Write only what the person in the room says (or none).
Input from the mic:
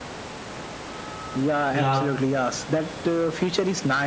Yeah,